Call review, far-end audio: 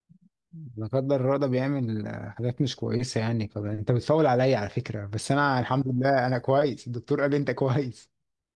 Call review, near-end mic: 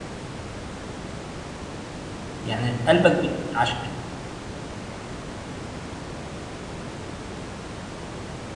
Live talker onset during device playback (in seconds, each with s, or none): 2.4 s